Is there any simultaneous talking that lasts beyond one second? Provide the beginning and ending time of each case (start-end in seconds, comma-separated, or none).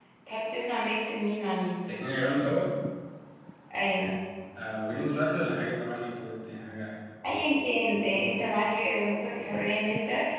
none